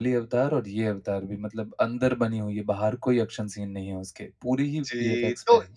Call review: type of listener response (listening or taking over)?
taking over